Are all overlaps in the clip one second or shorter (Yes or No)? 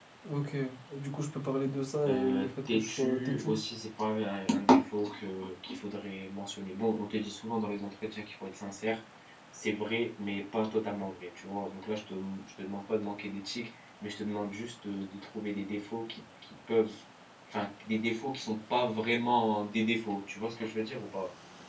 No